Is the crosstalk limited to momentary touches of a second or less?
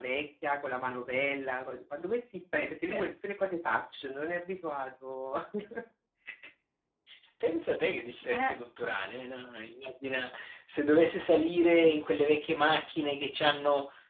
Yes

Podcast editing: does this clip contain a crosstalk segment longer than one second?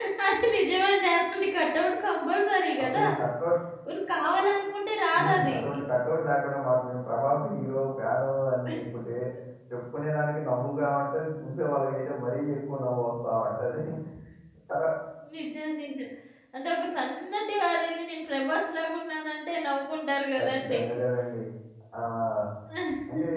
No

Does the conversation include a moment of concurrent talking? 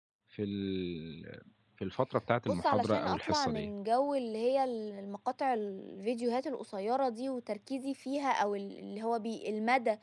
Yes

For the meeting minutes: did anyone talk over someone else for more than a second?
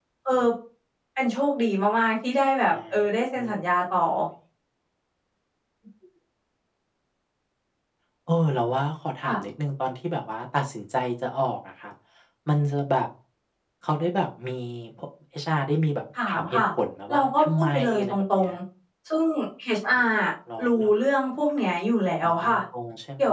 Yes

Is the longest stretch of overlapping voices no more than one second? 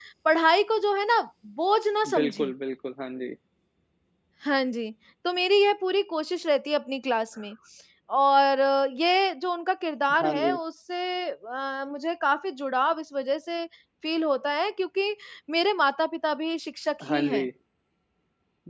Yes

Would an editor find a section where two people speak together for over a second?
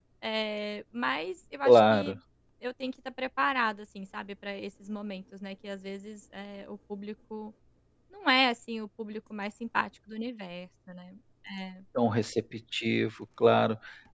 No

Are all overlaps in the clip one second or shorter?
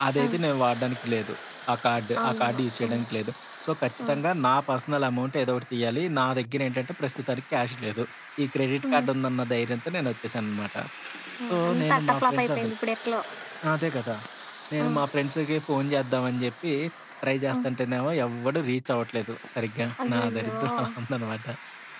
No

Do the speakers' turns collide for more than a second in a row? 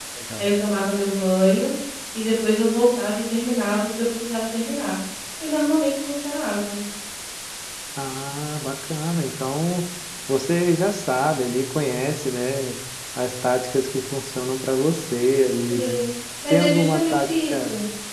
Yes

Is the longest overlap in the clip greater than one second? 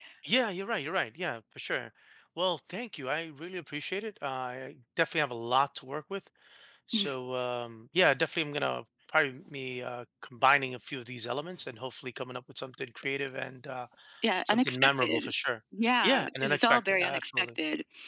Yes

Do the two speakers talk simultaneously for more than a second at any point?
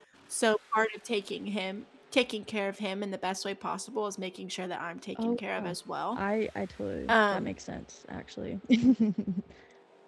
No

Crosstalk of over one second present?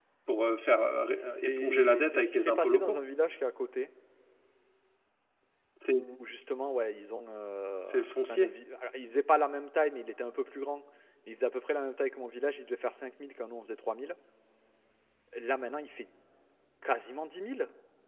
Yes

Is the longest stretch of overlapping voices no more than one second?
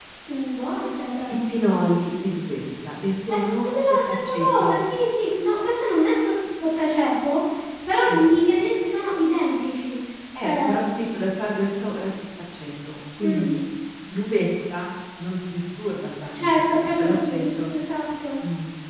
No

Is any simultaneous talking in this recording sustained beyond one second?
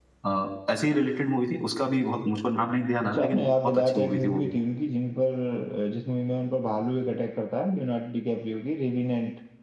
Yes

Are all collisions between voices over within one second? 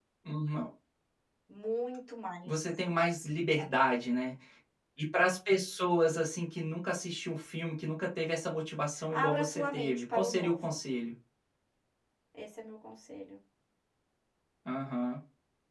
No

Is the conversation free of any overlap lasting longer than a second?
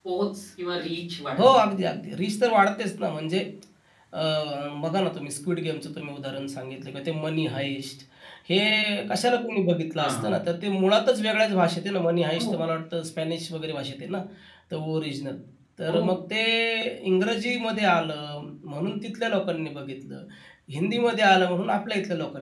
Yes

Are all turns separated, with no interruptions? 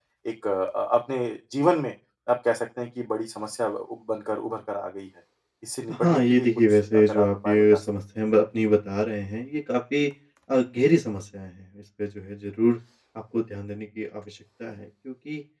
No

